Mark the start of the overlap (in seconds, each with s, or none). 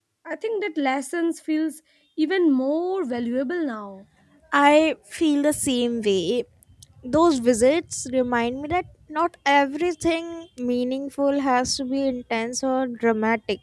none